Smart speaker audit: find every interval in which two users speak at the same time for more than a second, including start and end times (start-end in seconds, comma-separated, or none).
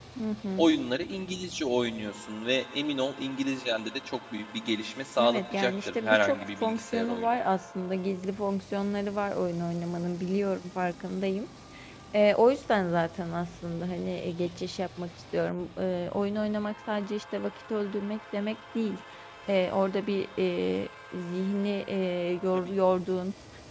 5.2-7.4